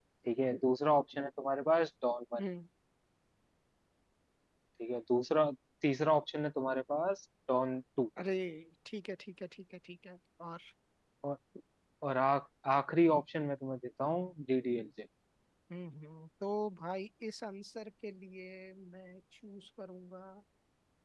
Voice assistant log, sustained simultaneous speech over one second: none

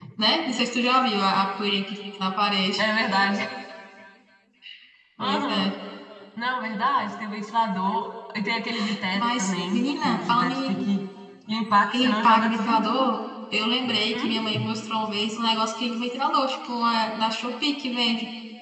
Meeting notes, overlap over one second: present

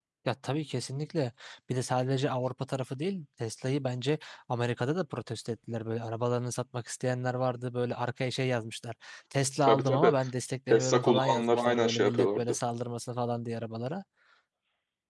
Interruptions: present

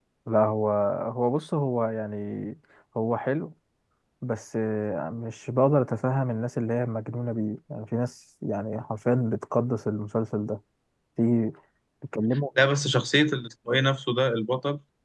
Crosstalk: none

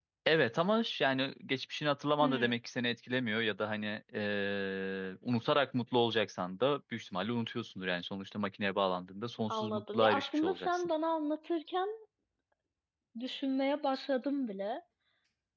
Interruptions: present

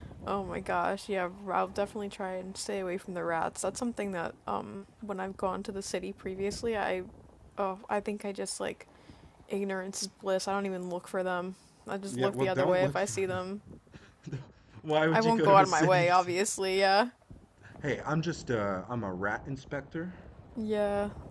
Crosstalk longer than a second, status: present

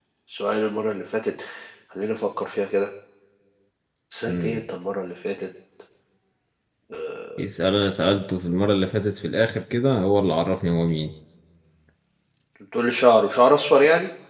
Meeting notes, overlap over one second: none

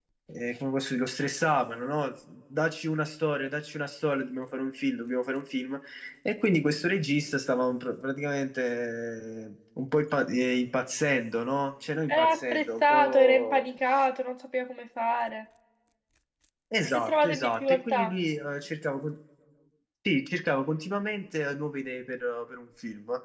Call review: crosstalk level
present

